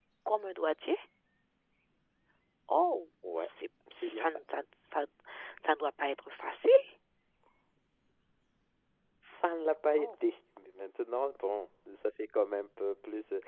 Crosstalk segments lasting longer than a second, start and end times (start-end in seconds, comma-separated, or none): none